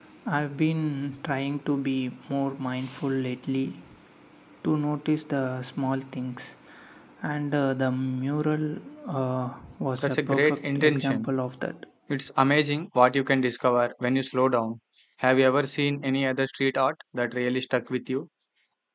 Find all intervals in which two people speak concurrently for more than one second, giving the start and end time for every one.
10.0-11.3

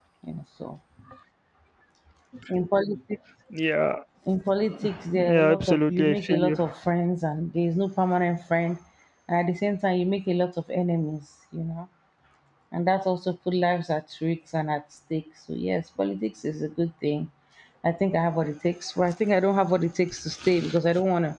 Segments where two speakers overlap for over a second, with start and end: 5.2-6.6

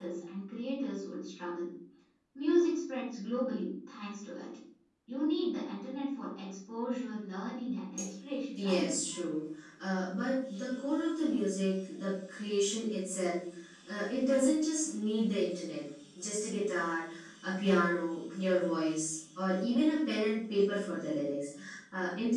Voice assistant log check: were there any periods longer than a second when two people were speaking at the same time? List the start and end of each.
none

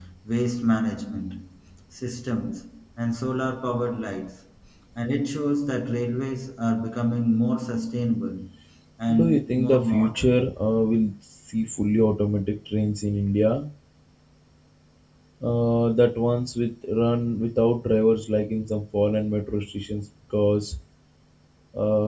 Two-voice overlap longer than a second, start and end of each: 9.1-10.4

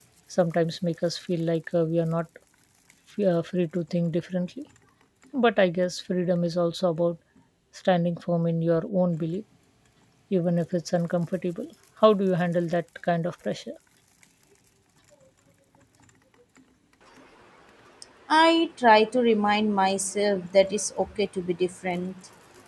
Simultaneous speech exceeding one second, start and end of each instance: none

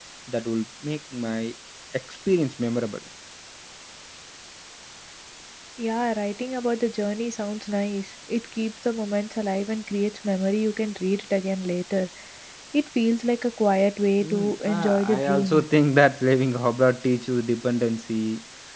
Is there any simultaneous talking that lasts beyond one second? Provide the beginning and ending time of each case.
14.2-15.6

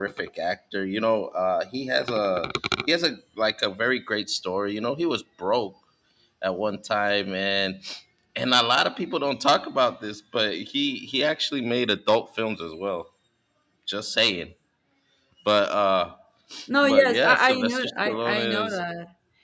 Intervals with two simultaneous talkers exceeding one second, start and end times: 16.8-18.8

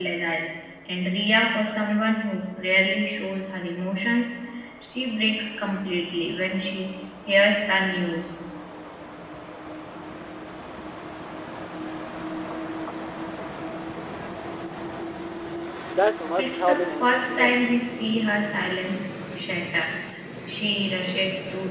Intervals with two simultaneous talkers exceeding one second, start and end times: 16.4-17.7

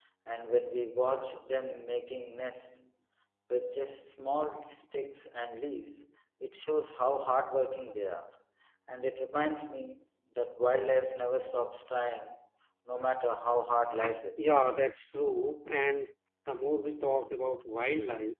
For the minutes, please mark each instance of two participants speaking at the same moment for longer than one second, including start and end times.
none

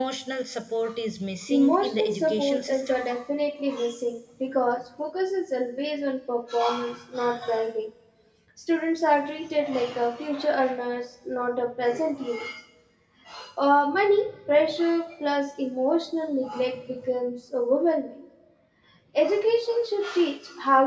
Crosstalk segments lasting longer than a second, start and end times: 1.5-3.0

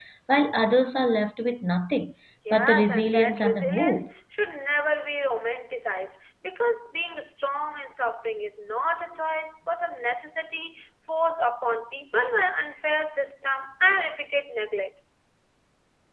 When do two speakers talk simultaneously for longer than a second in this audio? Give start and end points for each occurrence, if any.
2.5-4.1

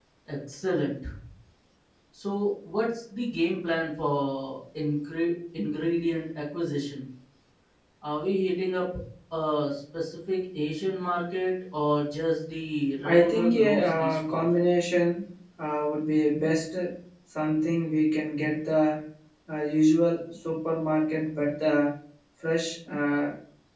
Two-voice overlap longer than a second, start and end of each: 13.0-14.4

